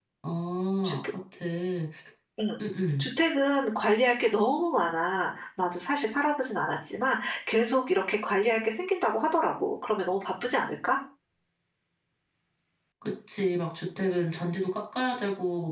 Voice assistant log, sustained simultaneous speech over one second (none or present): none